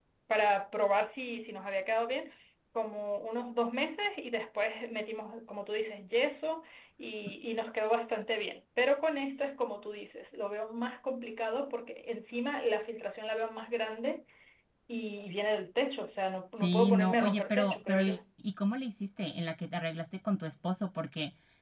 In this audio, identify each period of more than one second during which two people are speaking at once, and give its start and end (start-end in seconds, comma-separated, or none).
16.6-18.2